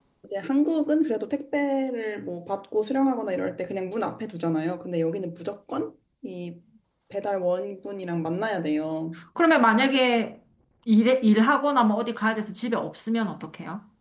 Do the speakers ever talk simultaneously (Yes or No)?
No